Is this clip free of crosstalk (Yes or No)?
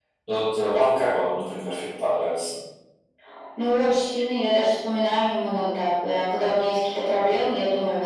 Yes